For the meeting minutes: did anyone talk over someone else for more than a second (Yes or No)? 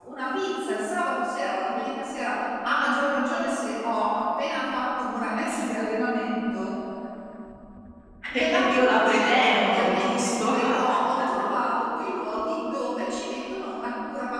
Yes